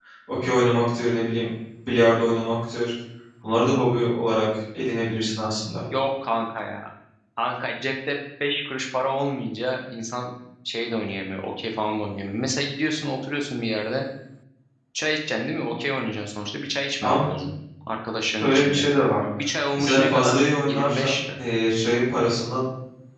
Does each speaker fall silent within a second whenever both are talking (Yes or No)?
No